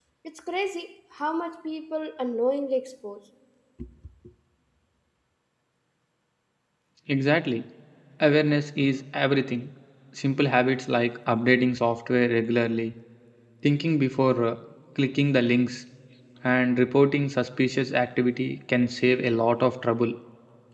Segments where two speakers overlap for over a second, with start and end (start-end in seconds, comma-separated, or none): none